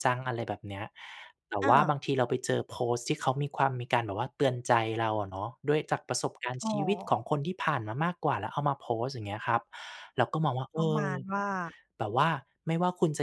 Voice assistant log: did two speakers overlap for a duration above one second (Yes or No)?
No